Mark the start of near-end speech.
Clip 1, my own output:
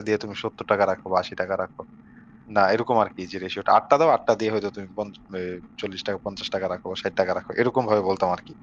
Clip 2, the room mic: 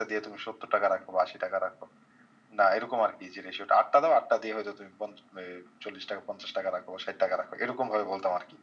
none

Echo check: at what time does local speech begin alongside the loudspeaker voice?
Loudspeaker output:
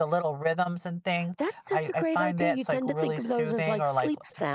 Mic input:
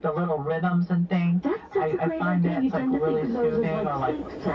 none

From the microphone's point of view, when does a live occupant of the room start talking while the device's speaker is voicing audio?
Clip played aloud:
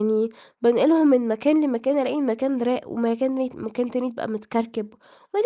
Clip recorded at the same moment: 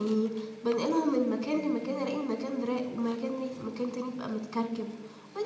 none

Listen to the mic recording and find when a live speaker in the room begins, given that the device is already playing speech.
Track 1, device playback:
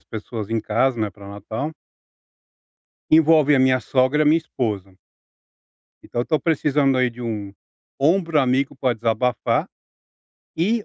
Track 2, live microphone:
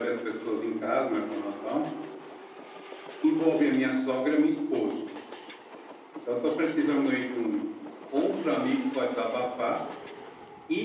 none

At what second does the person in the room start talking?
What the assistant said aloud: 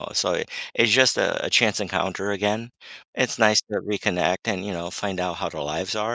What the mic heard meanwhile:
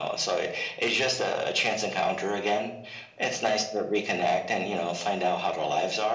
none

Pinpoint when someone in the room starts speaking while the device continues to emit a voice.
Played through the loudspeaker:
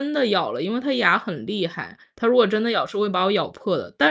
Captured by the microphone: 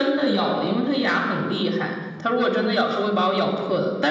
none

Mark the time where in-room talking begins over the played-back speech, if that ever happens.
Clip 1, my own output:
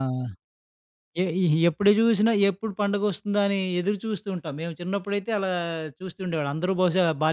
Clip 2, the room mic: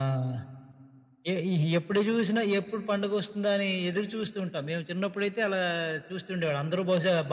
none

